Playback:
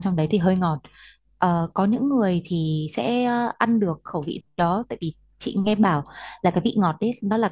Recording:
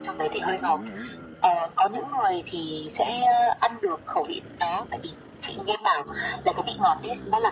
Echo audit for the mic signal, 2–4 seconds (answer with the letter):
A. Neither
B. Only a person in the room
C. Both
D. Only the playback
D